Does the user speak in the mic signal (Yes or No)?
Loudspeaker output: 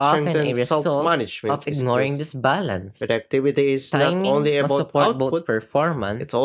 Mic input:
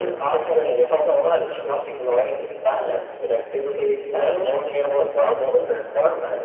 No